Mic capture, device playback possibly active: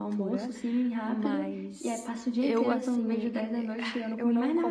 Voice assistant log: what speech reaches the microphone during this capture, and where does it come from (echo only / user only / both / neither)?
both